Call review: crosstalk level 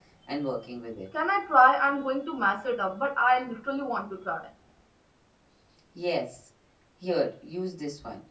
none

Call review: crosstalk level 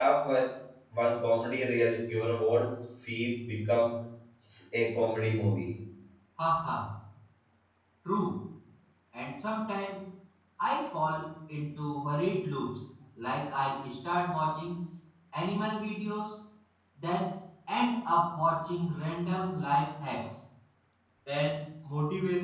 none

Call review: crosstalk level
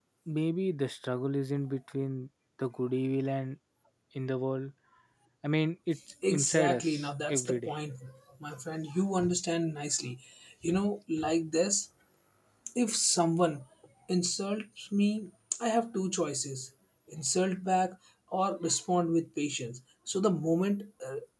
present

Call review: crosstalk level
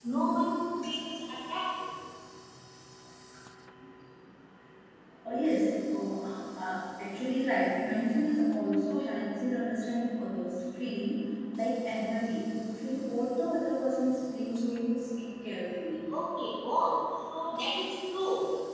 none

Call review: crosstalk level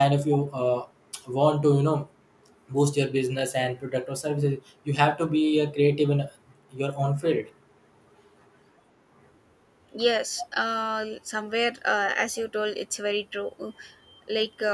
none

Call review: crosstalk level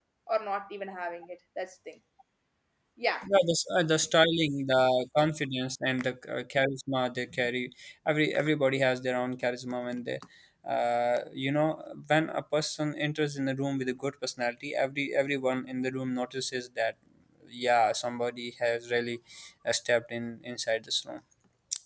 none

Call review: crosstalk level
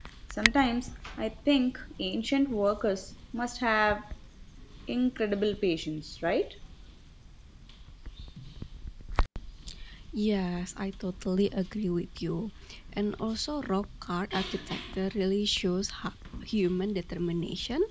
none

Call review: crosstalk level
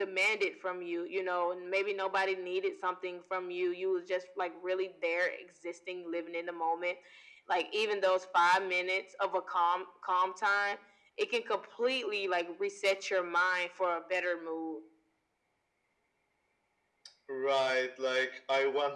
none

